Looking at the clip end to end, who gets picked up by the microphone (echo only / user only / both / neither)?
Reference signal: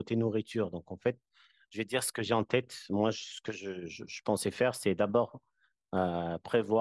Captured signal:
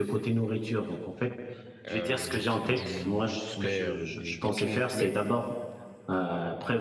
both